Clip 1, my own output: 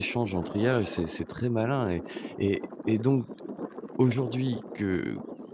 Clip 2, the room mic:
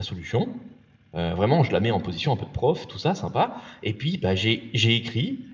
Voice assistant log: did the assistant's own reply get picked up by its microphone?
No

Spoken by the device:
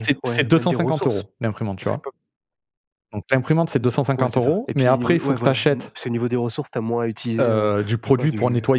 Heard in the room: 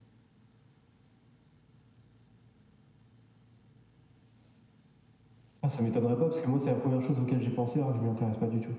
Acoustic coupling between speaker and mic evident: No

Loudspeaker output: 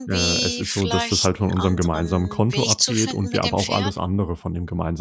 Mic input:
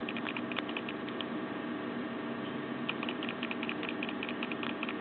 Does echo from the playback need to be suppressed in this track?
No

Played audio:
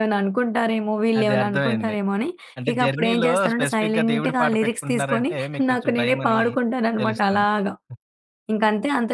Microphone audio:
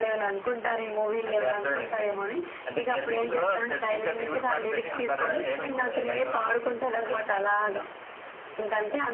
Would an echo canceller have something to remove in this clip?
Yes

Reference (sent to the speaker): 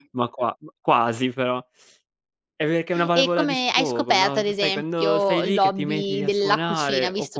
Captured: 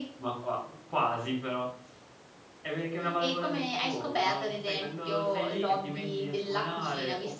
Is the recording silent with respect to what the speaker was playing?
No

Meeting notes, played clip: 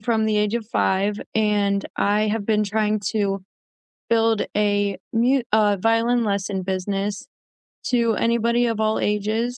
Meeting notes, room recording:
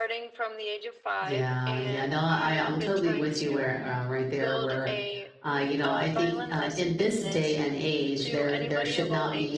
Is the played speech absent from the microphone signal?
No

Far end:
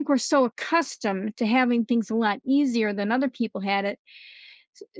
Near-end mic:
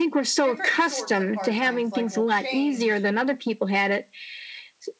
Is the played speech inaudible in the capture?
No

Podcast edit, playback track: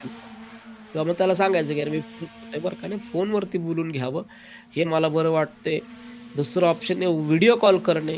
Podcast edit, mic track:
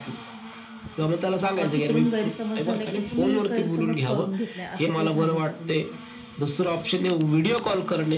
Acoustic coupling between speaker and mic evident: Yes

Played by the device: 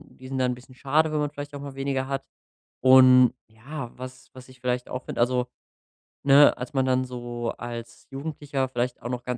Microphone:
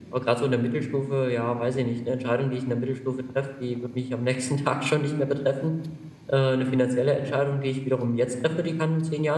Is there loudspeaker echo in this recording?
No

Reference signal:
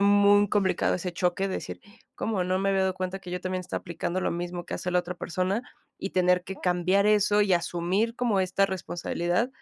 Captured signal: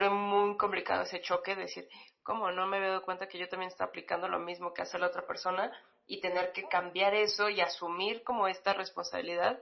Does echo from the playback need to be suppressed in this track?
Yes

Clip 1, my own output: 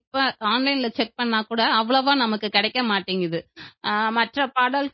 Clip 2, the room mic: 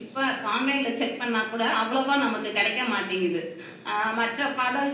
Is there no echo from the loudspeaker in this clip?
No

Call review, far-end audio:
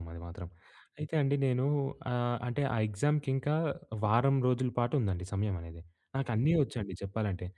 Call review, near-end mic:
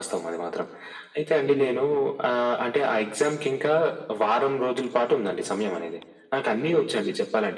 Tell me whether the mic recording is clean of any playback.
No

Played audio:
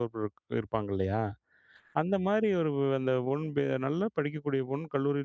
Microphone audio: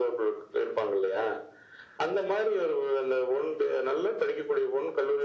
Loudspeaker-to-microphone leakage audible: Yes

